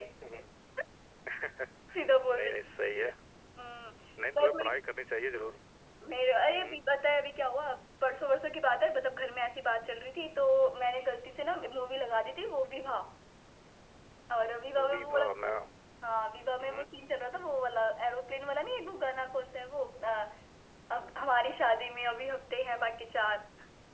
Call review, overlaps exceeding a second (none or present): none